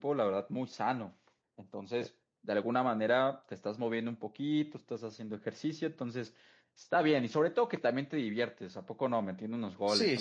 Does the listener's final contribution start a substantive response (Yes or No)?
Yes